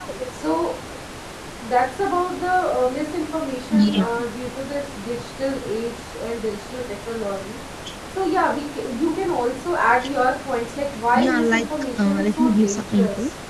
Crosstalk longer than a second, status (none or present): present